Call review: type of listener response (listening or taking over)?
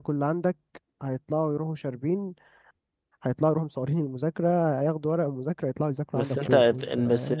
taking over